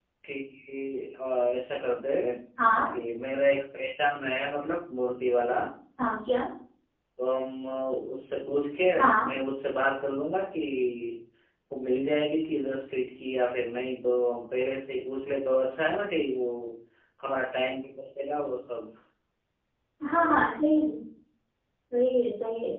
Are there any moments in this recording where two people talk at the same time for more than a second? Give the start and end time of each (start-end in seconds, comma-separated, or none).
none